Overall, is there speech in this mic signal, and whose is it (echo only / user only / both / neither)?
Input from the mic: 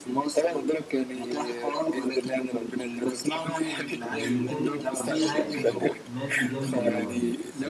both